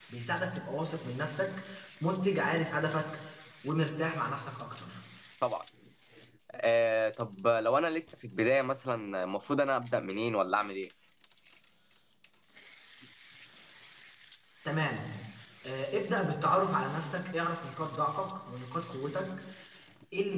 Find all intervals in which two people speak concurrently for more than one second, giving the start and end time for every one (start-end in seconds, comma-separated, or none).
none